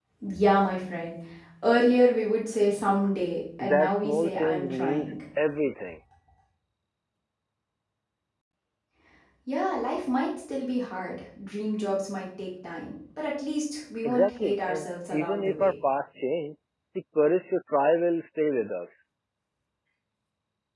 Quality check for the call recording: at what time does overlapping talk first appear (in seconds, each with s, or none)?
3.6 s